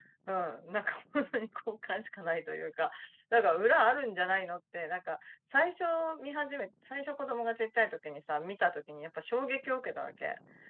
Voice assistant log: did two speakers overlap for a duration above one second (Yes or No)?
No